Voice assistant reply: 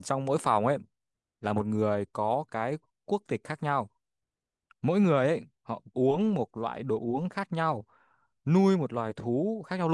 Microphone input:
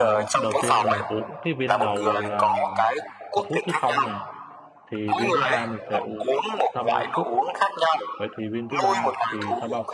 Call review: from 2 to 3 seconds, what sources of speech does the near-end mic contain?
both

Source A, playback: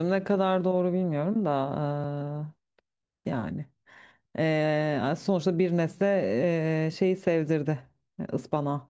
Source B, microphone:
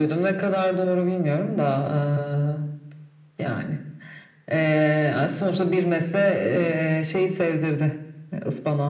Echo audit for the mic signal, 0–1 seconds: echo only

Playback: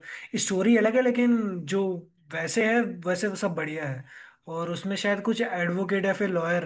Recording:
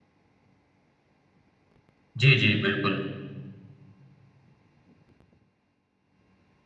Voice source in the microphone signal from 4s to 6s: neither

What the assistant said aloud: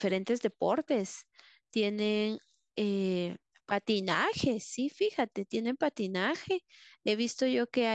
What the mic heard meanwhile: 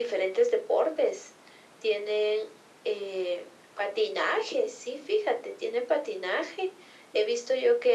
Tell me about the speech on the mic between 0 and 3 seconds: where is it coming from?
echo only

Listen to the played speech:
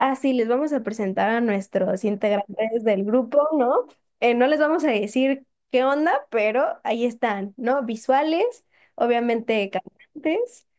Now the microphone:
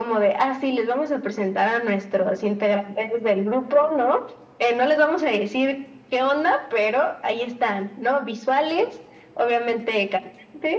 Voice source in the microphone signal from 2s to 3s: echo only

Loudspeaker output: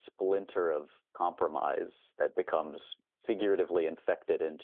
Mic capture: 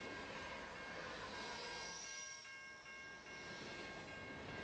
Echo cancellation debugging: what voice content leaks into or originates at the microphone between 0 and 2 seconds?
neither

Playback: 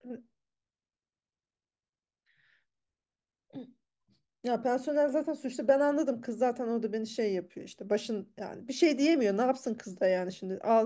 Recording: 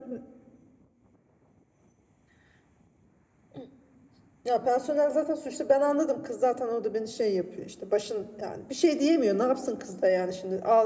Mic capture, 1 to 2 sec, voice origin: neither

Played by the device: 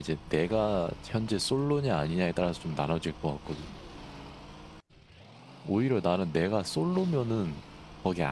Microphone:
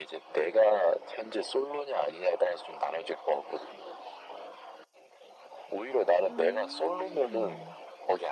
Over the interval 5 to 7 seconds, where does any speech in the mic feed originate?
both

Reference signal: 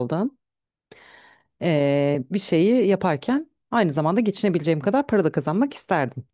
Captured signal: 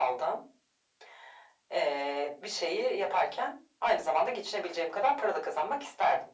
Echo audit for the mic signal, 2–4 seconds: echo only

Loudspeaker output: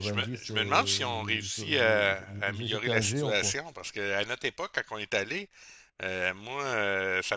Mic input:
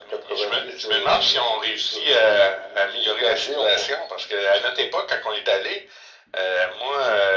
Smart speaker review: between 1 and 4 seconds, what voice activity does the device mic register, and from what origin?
echo only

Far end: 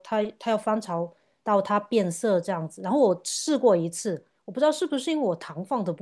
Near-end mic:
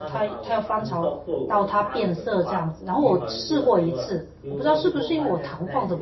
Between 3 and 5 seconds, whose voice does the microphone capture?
both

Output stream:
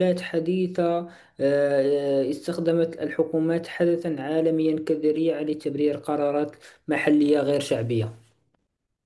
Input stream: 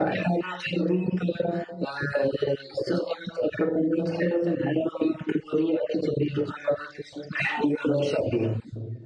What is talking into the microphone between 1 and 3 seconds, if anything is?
echo only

